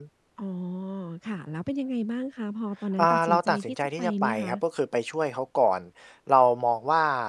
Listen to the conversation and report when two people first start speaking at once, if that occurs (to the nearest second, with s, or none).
3 s